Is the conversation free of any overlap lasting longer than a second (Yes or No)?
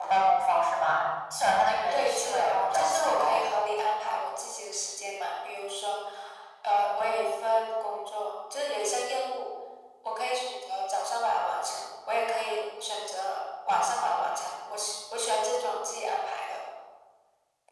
No